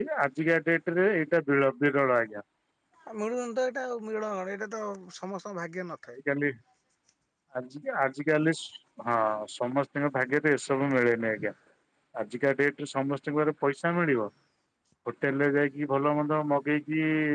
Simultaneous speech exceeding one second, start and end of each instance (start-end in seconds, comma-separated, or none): none